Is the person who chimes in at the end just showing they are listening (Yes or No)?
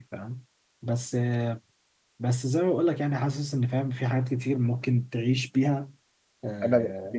No